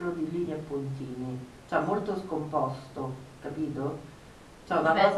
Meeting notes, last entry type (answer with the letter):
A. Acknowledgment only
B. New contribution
B